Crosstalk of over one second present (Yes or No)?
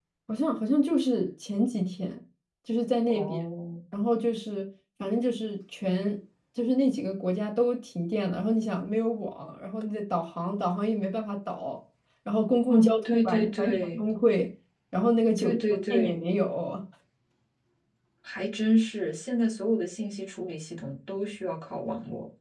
Yes